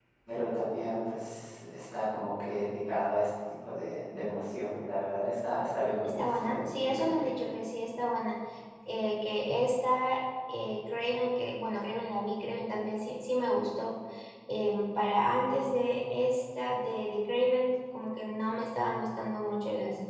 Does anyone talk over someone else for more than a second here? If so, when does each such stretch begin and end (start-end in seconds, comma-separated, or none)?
6.0-7.3